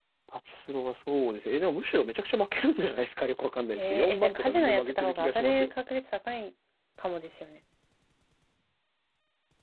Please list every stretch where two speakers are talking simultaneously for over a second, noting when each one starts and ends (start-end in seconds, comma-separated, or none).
3.8-5.7